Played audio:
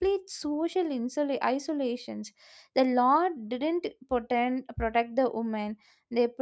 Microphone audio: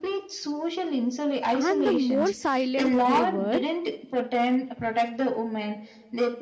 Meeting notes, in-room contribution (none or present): present